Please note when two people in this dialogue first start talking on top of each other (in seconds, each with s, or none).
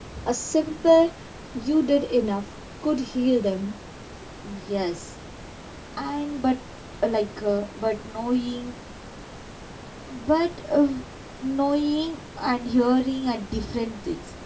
none